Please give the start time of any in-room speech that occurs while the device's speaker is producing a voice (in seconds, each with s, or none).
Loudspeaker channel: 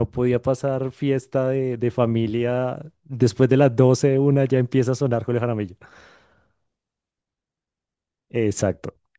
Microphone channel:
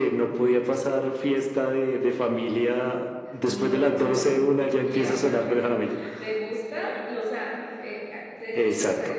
3.4 s